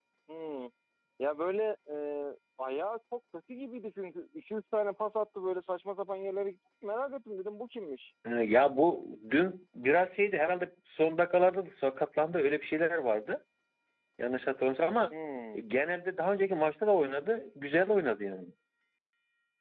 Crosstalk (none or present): none